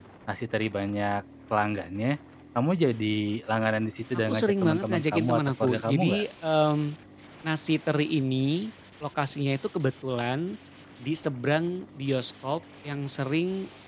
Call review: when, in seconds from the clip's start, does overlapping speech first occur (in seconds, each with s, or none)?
4.3 s